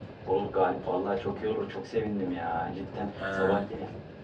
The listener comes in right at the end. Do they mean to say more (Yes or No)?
No